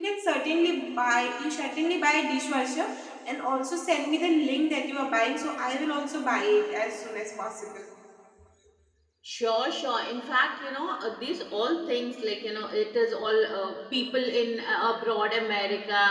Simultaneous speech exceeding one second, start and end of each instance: none

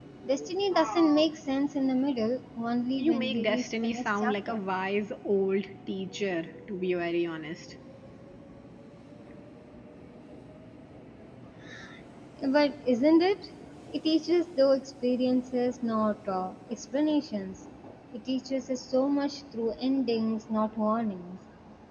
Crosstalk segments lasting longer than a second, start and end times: 3.0-4.6

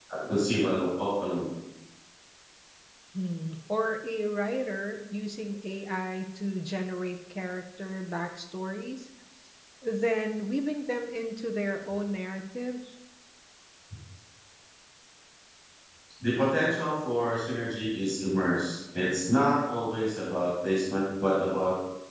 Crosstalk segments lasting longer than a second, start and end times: none

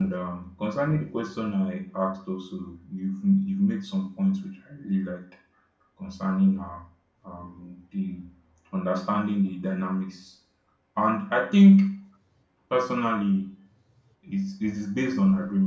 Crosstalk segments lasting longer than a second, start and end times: none

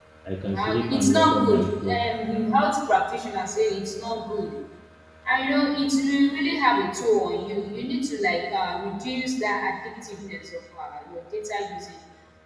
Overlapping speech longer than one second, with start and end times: 0.6-2.1

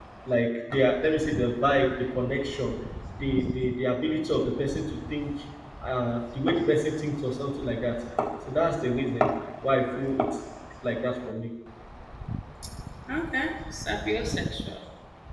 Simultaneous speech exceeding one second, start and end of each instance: none

